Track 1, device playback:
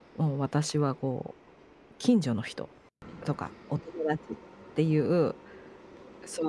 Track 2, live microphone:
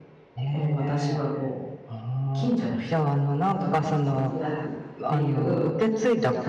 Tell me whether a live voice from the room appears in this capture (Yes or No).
Yes